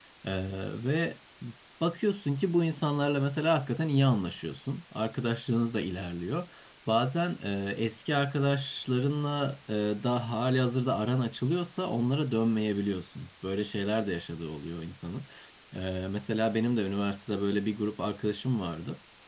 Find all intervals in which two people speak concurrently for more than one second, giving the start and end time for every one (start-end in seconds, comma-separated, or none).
none